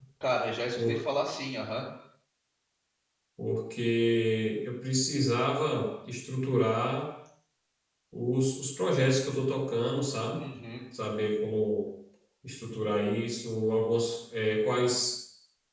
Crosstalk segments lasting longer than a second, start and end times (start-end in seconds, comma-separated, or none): none